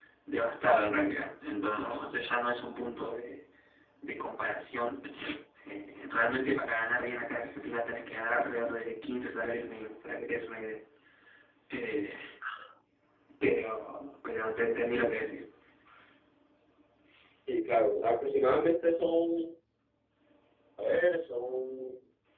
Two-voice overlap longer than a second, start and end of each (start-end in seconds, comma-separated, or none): none